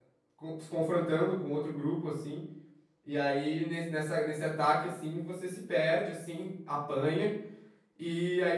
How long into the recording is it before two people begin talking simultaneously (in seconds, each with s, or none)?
none